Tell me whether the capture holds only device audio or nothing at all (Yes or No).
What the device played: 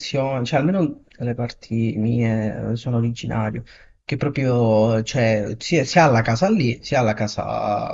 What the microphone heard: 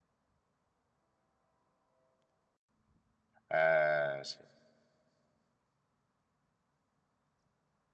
No